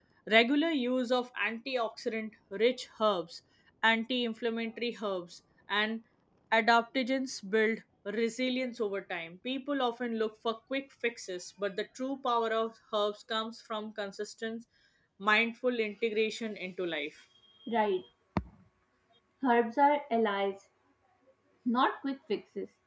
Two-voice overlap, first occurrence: none

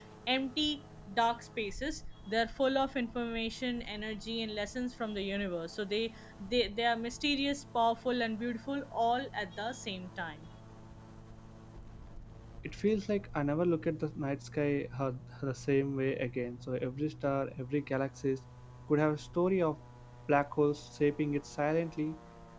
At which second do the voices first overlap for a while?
none

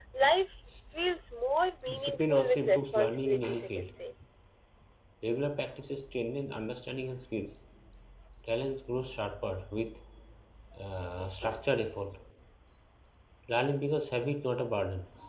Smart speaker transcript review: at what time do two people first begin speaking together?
1.9 s

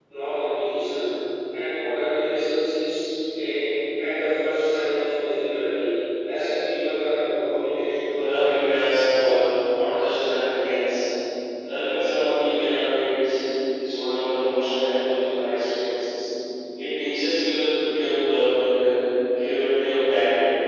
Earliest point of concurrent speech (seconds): 8.0 s

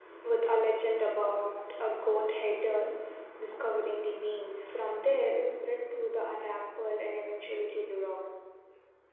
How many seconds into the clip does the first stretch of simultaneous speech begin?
none

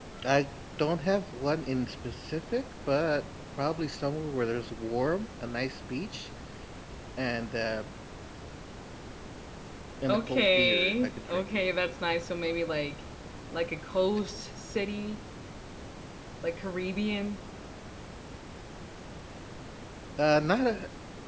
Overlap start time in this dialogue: 10.1 s

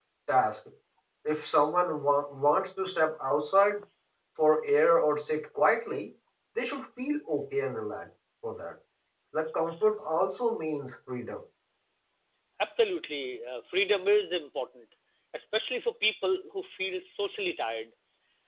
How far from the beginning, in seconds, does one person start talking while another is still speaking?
none

